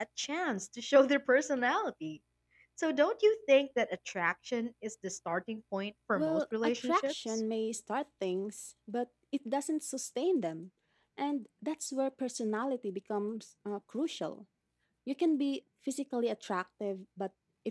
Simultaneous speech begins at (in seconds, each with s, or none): 6.2 s